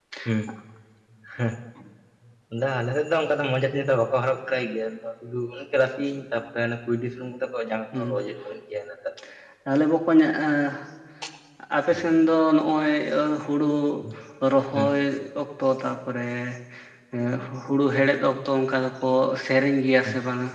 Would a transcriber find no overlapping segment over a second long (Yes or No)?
Yes